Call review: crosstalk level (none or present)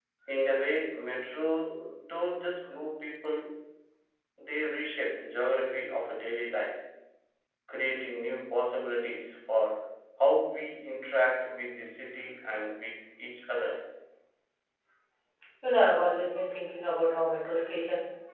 none